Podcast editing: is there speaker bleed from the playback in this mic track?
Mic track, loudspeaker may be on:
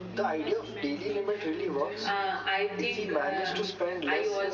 Yes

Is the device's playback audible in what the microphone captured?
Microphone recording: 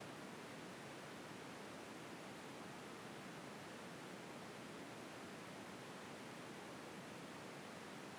No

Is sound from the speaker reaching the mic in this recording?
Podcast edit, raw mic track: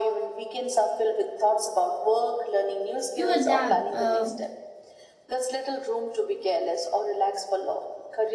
Yes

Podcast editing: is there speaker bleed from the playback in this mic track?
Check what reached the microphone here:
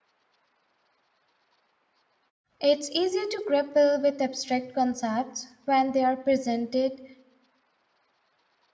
No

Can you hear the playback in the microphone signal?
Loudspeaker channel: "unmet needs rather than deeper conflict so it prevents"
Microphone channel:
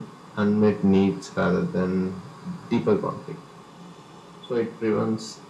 Yes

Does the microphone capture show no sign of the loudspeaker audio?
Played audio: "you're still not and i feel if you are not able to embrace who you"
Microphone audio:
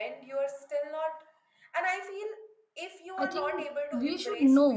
No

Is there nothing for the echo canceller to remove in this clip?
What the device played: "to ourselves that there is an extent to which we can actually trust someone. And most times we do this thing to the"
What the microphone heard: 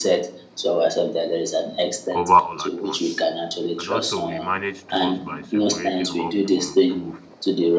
No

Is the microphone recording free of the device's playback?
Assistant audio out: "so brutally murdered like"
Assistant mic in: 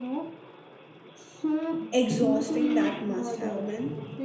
No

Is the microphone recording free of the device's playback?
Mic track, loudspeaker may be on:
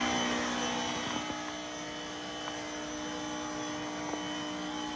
Yes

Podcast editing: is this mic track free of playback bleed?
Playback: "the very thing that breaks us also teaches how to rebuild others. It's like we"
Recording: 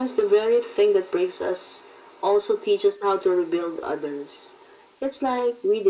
No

